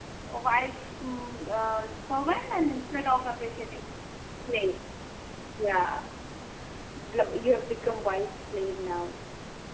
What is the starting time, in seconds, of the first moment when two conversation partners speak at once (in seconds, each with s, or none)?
none